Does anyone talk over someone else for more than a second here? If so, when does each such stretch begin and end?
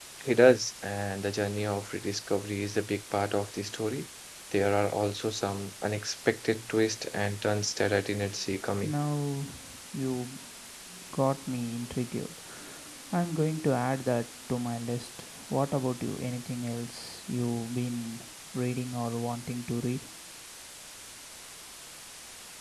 none

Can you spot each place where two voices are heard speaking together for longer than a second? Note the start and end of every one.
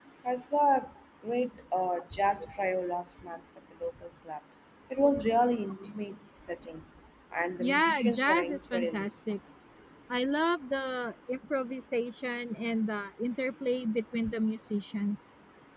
7.6-9.0

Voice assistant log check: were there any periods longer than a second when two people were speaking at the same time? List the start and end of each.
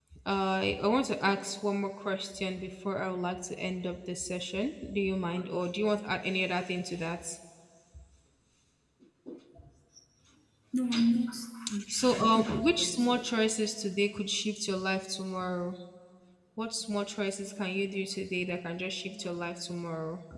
11.9-13.2

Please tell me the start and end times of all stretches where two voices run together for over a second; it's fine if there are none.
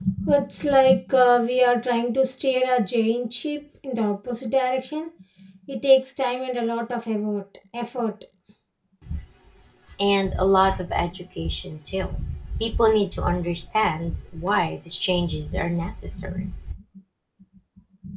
none

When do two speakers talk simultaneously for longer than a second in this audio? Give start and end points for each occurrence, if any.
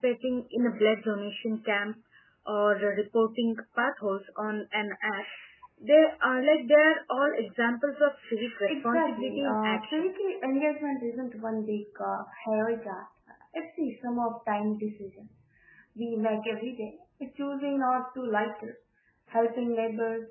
8.7-10.1

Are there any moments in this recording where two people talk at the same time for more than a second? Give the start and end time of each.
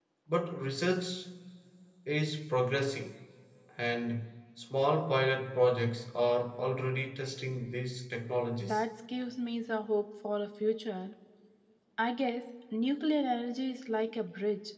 none

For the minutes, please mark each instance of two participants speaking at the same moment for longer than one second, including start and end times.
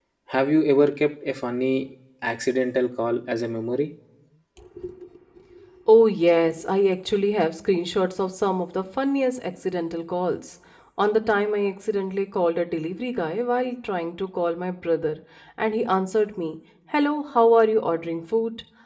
none

